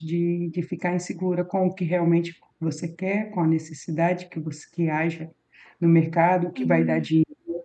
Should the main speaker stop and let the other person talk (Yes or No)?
No